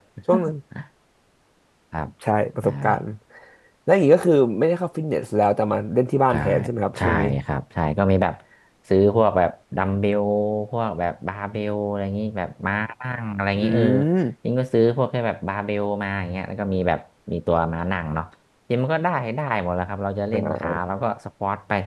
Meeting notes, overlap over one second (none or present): none